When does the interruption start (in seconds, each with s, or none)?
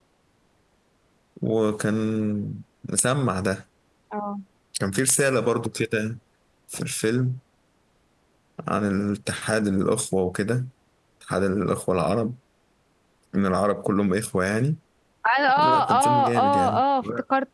15.6 s